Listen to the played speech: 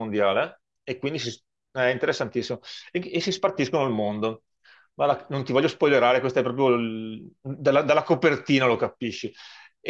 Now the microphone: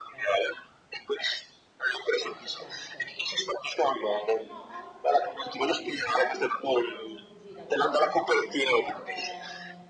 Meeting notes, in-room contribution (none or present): present